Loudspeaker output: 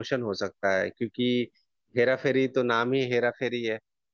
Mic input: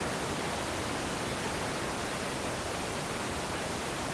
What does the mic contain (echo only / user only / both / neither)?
neither